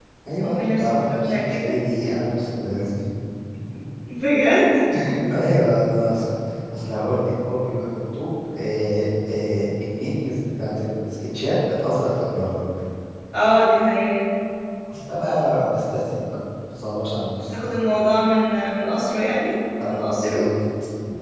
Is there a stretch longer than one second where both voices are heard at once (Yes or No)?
Yes